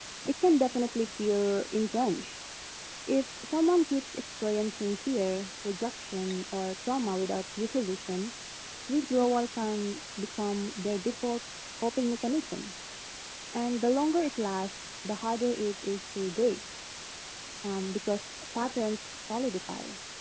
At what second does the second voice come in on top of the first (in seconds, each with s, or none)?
none